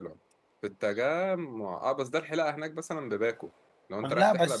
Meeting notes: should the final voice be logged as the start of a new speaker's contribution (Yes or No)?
Yes